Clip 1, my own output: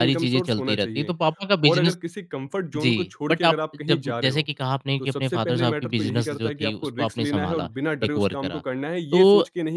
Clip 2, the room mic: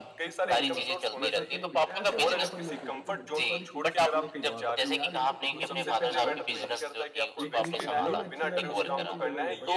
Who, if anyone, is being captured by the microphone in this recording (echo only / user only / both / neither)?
both